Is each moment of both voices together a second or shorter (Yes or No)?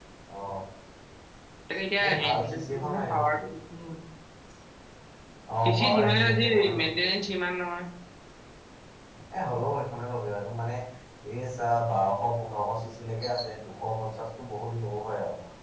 No